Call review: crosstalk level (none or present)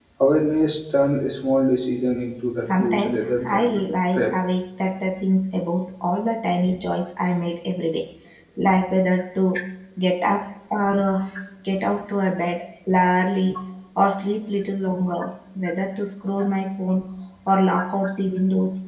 present